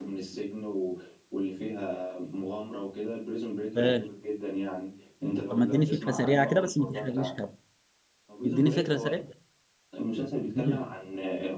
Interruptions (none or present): present